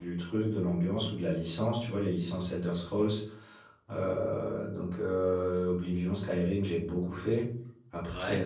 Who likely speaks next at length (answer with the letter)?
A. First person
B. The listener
A